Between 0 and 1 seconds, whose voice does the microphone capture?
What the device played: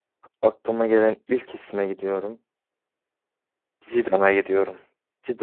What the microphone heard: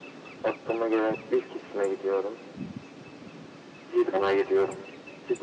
echo only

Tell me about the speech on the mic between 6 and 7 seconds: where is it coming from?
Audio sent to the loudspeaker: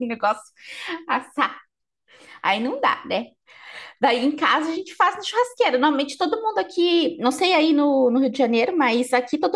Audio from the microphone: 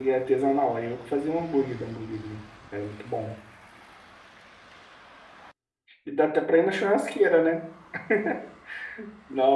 user only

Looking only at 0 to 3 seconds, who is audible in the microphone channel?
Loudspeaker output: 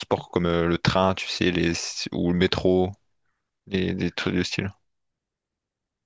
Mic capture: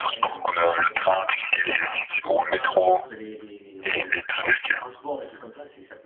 both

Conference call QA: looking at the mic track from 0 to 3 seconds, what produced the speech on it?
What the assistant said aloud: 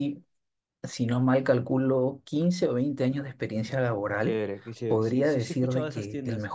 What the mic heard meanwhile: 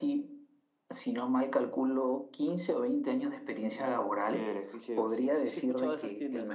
echo only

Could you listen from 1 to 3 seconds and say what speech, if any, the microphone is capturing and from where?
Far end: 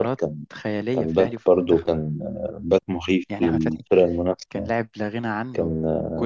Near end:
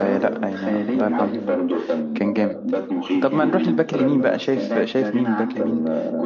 both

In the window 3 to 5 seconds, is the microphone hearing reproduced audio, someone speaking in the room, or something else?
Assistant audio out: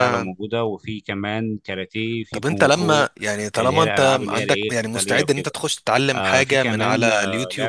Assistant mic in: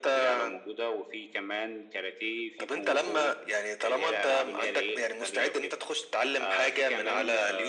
echo only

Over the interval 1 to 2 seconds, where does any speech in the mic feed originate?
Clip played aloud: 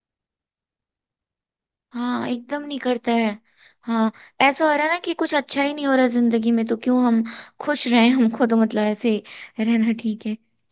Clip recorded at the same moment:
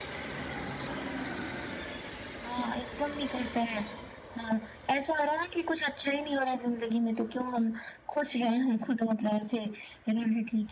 neither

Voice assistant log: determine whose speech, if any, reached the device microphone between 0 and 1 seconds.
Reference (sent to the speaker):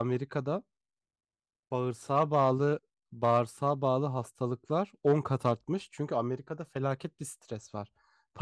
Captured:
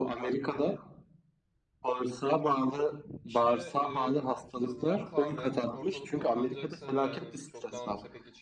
echo only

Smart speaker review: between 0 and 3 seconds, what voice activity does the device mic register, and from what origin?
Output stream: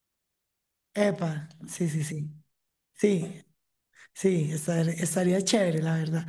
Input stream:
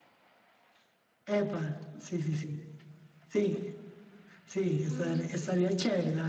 echo only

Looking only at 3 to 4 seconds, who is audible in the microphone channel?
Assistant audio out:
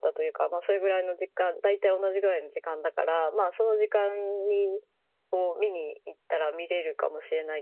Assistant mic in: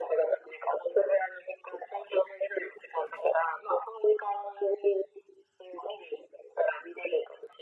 echo only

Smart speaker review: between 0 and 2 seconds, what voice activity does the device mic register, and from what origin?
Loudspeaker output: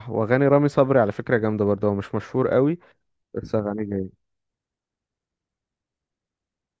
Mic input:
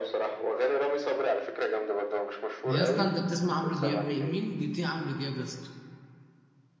echo only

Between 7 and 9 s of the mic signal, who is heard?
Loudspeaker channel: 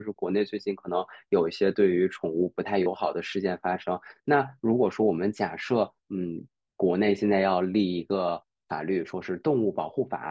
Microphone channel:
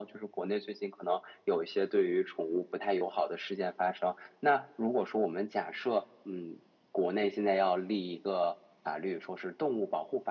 echo only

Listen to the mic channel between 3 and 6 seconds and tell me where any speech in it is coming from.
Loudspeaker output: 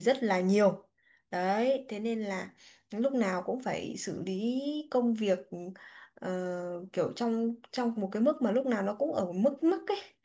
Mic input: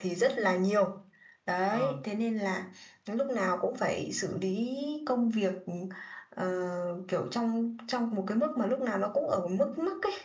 echo only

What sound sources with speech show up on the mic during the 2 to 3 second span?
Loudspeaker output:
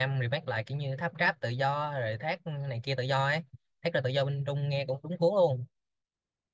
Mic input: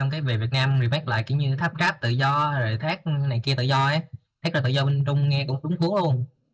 echo only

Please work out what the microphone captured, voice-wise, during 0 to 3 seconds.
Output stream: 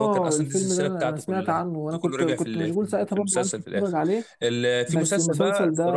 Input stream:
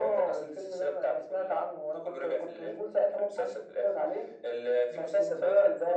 echo only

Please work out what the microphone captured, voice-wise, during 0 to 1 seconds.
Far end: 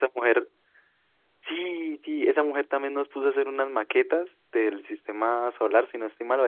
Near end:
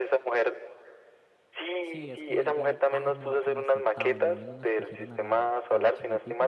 echo only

